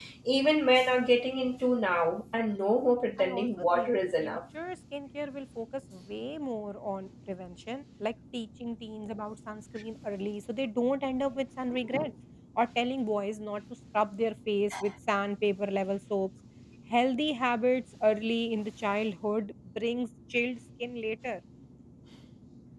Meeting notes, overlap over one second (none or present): present